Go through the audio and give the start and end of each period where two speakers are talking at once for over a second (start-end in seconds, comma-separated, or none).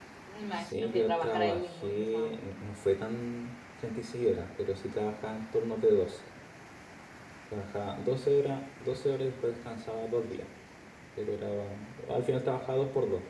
0.5-2.4